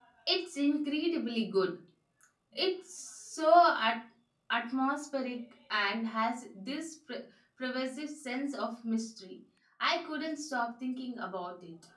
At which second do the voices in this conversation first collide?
none

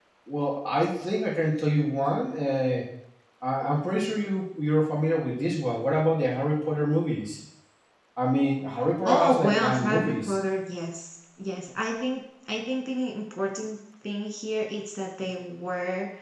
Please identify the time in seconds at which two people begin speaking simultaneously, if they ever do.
9 s

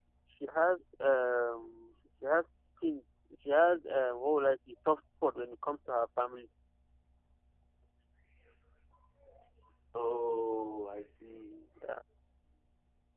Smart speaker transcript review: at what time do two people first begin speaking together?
none

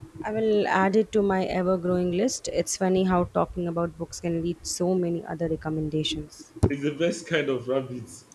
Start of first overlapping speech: none

